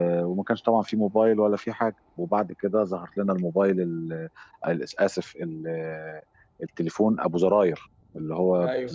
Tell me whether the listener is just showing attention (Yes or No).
Yes